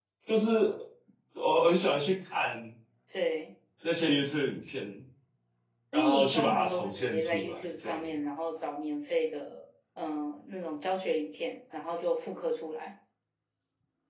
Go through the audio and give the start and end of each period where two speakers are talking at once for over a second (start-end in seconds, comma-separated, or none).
5.9-8.0